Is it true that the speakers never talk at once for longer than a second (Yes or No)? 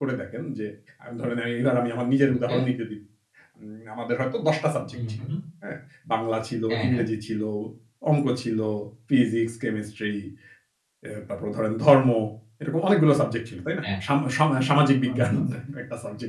Yes